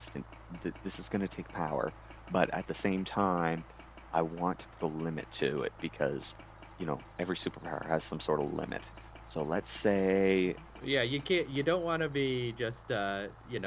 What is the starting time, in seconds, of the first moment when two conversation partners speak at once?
none

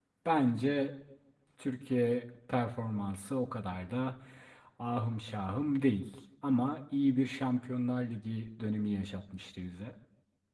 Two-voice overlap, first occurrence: none

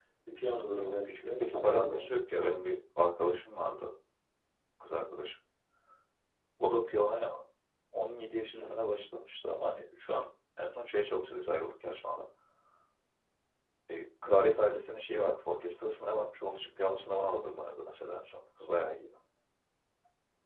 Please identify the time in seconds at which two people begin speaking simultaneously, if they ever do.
1 s

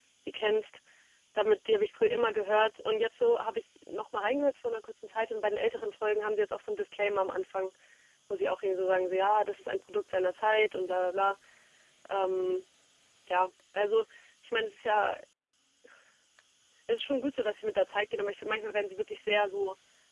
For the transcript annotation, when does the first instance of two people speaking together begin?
none

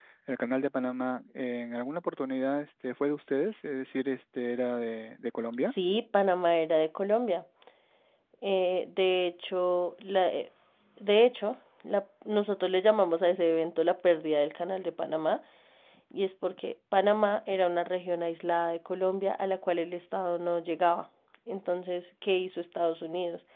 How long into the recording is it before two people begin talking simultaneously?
none

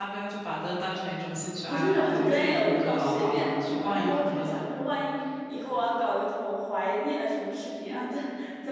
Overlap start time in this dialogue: 2 s

